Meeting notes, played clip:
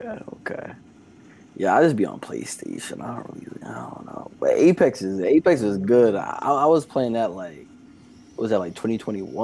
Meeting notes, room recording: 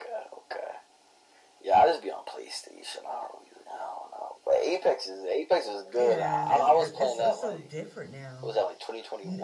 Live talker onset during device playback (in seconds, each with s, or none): 5.9 s